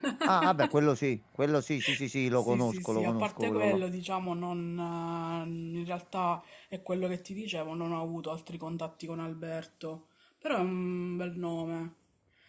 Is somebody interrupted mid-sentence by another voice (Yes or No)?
Yes